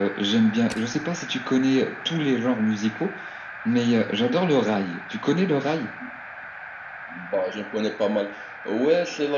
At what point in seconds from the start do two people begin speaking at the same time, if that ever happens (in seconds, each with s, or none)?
none